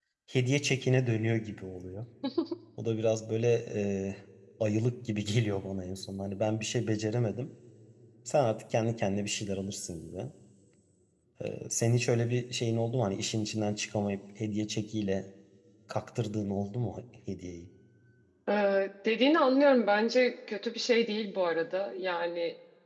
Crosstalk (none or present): none